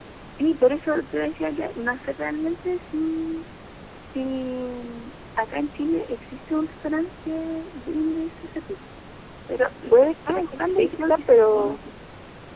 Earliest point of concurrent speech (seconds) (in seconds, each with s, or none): 9.9 s